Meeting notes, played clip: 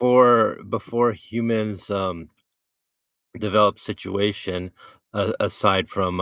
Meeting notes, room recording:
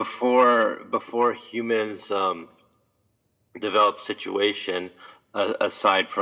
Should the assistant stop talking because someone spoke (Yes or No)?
No